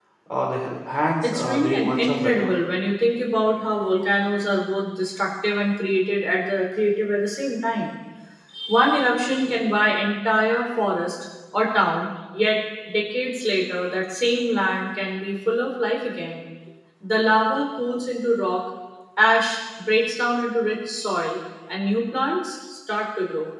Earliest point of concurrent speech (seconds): 1.2 s

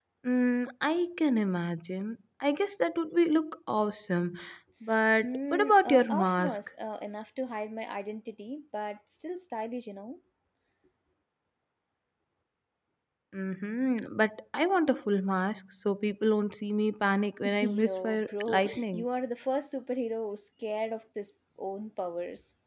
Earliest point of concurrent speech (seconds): 5.2 s

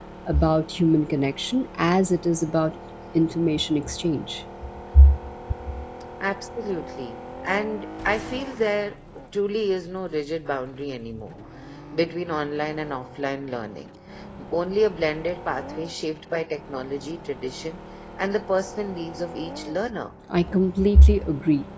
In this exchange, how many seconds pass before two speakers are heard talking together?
none

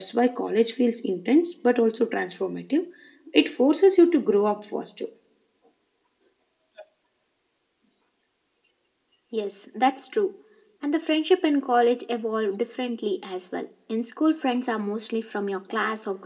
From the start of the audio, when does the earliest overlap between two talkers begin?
none

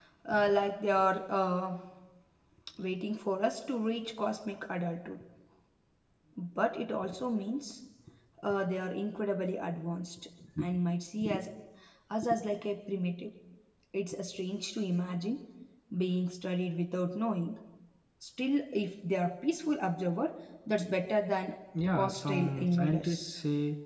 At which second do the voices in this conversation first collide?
21.9 s

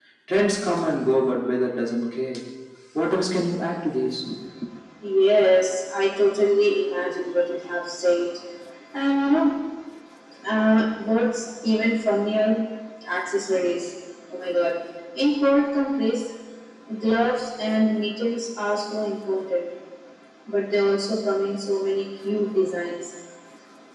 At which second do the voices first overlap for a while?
none

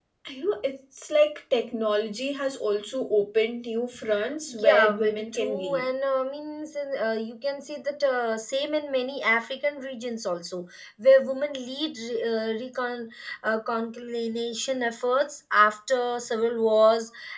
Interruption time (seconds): 4.5 s

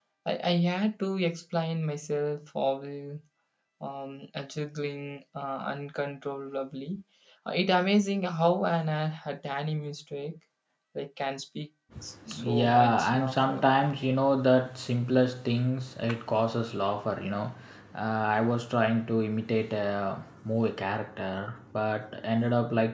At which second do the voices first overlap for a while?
12.4 s

